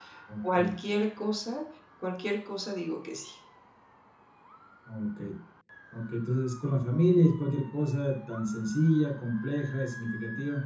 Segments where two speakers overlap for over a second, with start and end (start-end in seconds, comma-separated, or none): none